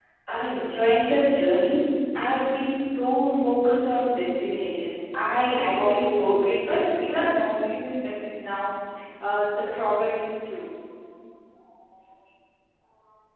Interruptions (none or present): present